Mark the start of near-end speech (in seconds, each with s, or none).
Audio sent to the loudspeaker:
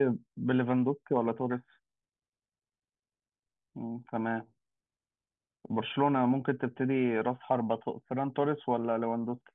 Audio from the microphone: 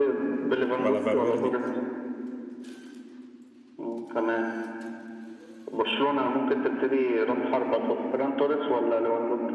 0.8 s